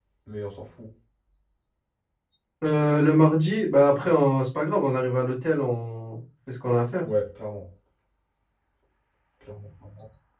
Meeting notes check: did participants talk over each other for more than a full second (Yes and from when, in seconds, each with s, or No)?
No